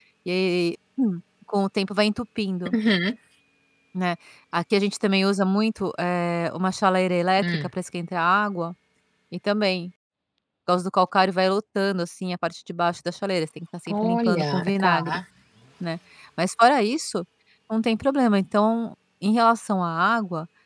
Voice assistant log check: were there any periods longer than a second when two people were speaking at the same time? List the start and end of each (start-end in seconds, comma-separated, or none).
13.9-15.2